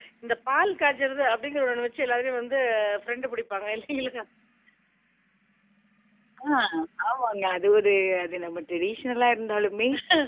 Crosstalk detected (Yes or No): No